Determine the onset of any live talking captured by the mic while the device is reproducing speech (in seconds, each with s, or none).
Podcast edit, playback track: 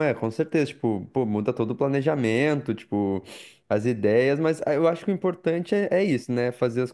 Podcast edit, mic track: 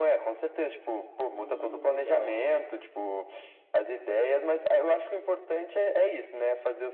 1.2 s